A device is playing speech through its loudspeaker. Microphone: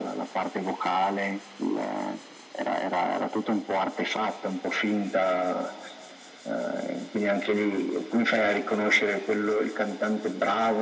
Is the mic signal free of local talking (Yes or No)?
Yes